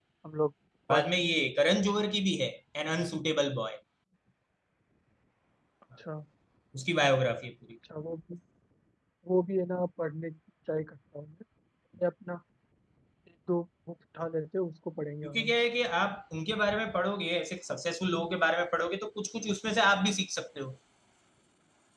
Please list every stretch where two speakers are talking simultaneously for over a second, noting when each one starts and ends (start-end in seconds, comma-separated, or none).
none